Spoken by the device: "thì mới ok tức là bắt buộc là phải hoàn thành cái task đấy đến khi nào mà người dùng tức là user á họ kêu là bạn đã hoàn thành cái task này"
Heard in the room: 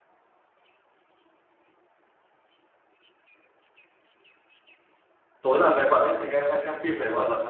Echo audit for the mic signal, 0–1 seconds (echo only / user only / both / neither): neither